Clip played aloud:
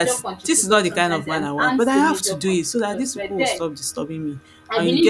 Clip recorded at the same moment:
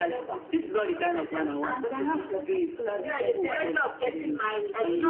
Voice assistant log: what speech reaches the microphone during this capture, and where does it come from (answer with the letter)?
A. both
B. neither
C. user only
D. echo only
A